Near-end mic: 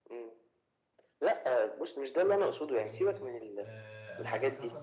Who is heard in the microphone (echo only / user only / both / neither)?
both